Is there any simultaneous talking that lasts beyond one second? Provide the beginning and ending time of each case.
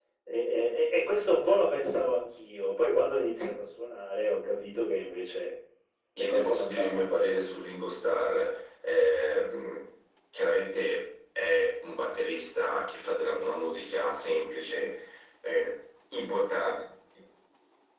6.2-7.6

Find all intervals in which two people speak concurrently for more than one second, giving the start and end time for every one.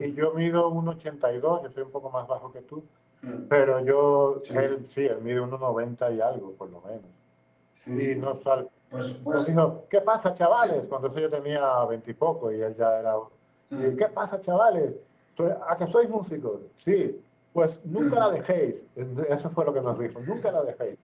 none

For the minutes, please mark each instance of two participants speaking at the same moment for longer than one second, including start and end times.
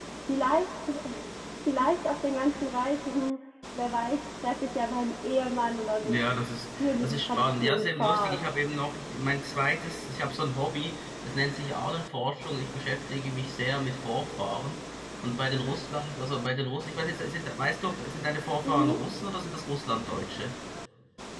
6.8-8.4

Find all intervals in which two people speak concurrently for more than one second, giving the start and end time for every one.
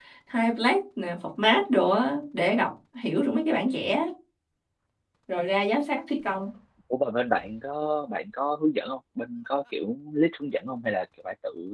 none

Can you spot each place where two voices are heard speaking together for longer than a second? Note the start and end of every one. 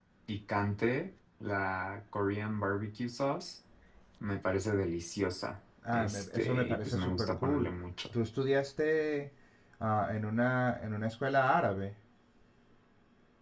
5.9-7.7

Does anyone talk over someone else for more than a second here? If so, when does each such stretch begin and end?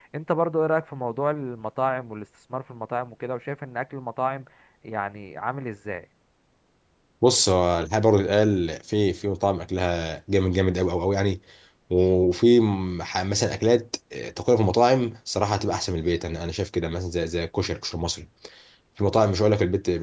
none

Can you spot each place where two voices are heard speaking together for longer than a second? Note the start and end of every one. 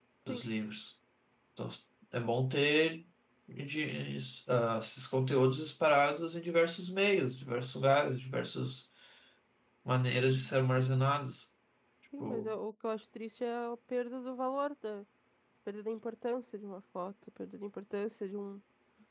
none

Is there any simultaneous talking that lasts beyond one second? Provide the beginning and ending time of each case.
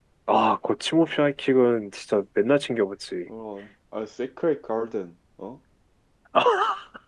none

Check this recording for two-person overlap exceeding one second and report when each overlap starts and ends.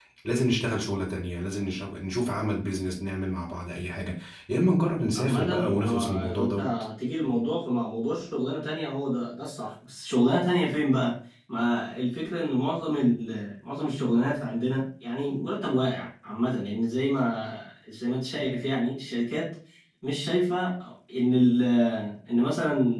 5.2-6.7

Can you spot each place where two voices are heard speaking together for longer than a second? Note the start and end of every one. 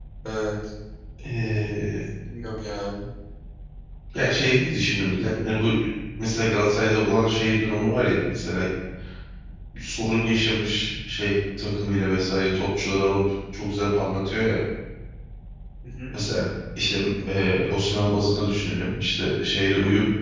none

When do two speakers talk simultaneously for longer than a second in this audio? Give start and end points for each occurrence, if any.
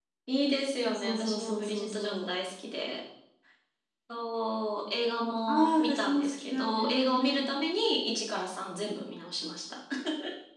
0.8-2.3, 5.5-7.5

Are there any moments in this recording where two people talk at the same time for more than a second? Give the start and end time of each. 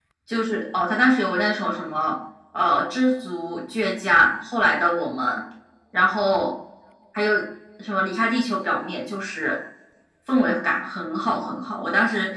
none

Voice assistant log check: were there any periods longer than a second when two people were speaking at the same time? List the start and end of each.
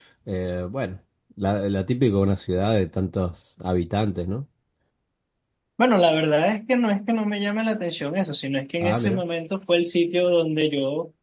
none

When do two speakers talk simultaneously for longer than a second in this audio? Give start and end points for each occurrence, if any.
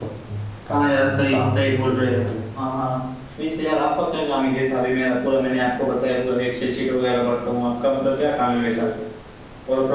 0.7-2.3

